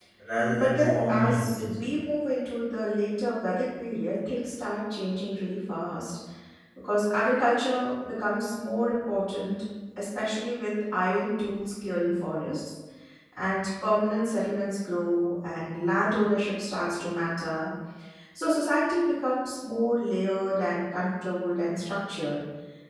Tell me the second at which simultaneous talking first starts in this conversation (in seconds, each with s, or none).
0.5 s